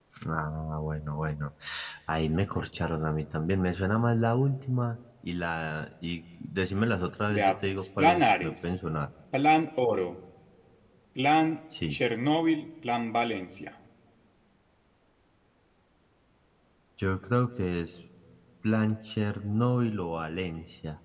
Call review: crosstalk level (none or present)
present